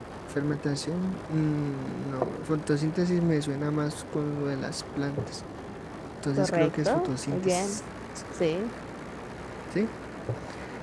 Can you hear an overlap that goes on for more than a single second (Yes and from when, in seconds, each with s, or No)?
Yes, from 6.4 s